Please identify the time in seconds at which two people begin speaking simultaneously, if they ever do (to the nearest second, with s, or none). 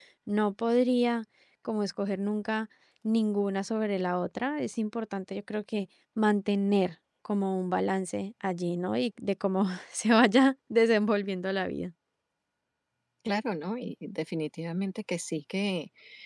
none